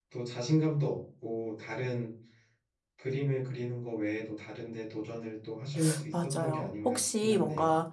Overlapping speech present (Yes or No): Yes